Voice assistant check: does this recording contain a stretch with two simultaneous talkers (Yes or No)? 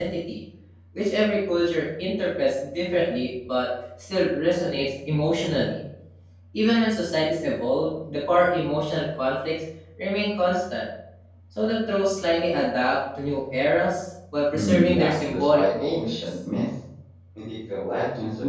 Yes